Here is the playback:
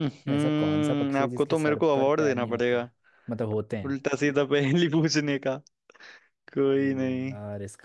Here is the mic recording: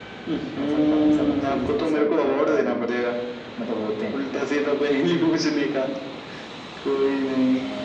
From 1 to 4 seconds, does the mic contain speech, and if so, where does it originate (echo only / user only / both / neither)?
echo only